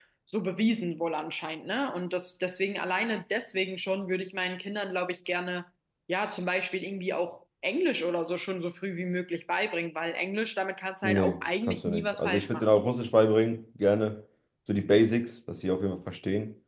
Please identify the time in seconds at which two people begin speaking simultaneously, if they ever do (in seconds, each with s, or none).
11.0 s